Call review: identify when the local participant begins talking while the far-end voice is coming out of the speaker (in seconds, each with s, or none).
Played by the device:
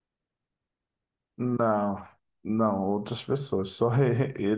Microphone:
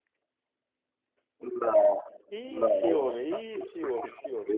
2.3 s